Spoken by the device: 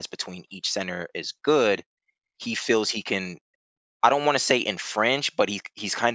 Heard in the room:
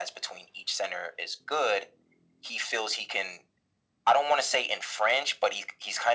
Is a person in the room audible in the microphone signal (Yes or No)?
No